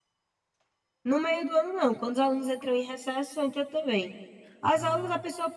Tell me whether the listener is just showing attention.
Yes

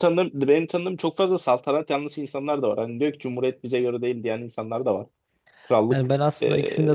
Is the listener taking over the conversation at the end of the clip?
Yes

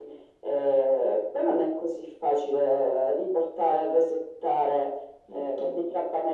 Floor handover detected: No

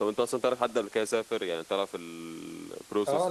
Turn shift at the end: Yes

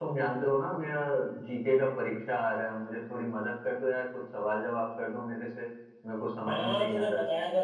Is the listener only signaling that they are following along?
No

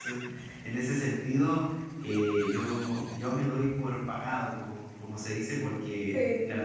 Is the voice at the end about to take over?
No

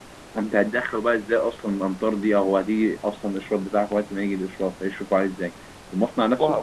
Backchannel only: Yes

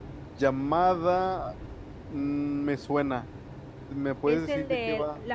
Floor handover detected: Yes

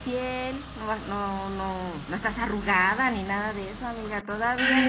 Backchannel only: No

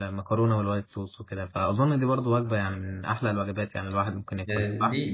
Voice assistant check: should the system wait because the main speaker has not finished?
No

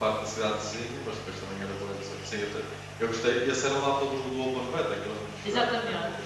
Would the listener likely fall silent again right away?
No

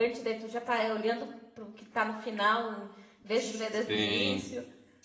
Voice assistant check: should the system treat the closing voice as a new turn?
Yes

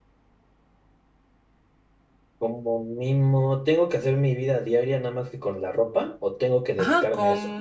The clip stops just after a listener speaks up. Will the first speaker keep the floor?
No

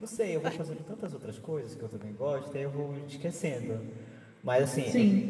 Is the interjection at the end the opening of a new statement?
No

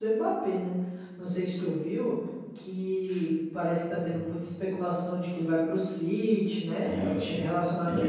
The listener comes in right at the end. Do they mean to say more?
Yes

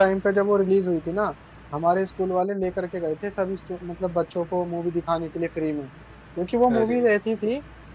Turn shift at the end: No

